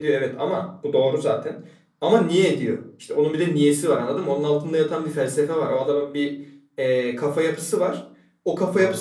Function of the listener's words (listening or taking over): listening